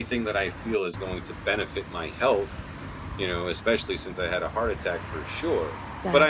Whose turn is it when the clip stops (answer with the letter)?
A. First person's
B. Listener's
A